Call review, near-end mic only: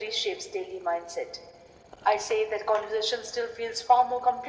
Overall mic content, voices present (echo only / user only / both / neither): echo only